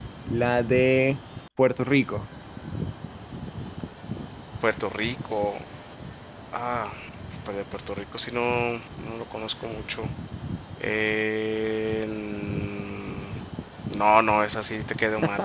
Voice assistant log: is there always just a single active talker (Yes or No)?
Yes